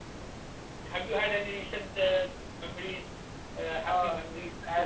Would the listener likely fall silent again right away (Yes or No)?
No